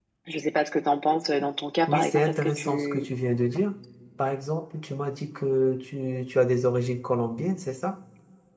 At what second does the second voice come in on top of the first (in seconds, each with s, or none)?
1.9 s